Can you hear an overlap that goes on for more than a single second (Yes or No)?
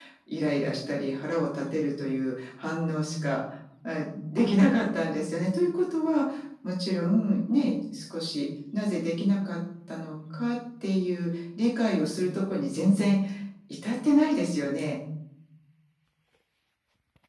No